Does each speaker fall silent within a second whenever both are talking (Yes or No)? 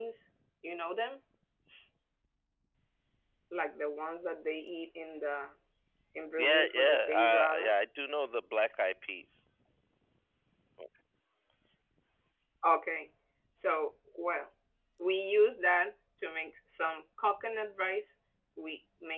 No